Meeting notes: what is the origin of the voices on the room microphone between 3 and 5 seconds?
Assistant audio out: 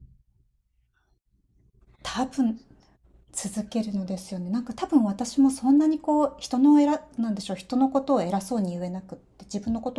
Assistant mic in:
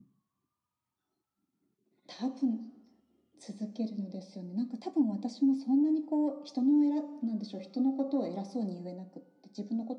echo only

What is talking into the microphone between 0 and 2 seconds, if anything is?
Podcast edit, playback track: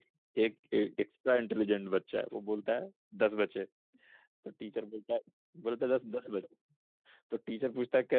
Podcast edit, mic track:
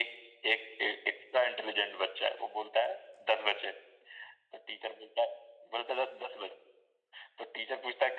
echo only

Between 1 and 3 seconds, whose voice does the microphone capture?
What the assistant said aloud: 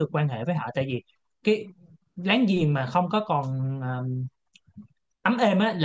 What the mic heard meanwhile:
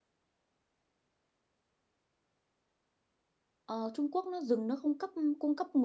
neither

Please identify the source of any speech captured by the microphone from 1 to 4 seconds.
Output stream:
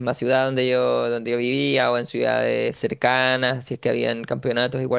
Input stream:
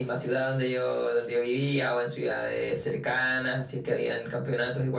echo only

